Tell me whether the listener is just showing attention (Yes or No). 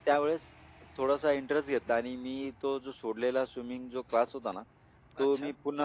Yes